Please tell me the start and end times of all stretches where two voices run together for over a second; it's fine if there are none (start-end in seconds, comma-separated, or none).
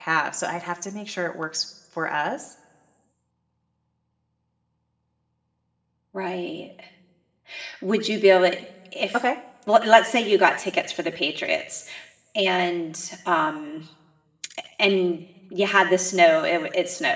none